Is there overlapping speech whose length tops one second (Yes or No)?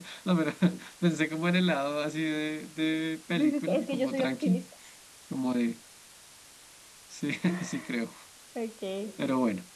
Yes